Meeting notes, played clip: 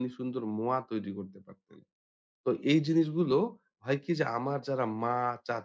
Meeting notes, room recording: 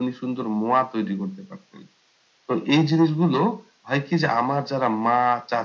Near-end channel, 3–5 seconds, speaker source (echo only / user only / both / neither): echo only